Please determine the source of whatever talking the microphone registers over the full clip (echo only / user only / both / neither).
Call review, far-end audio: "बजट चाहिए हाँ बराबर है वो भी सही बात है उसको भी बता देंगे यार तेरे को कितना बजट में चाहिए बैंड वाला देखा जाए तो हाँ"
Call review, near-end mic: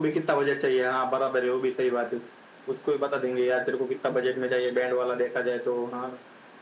echo only